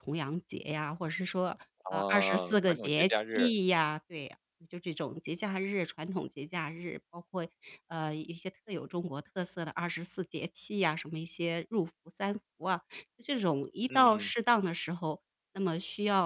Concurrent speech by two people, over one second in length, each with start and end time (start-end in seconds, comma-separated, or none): 1.9-3.5